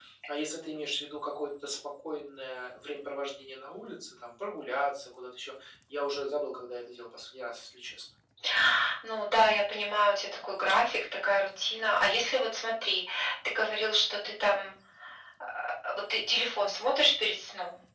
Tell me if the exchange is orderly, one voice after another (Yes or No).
Yes